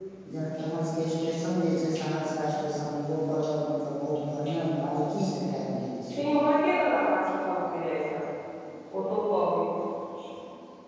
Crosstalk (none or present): none